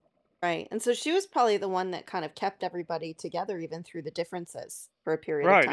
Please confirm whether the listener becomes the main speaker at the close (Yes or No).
Yes